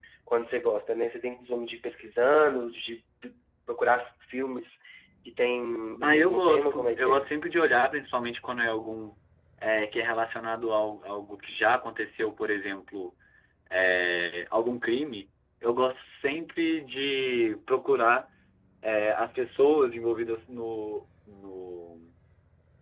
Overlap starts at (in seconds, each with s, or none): 6.0 s